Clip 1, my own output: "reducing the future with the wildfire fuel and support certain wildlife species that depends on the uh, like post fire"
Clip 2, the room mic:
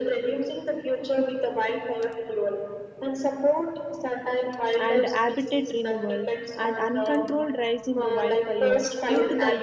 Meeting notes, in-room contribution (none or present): present